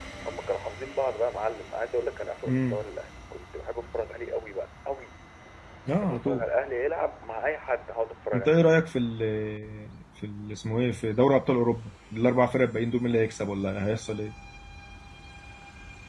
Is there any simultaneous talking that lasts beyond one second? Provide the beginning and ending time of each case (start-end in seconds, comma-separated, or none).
none